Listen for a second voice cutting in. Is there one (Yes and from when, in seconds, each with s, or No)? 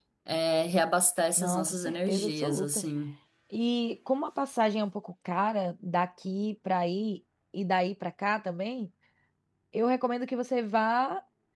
Yes, from 1.4 s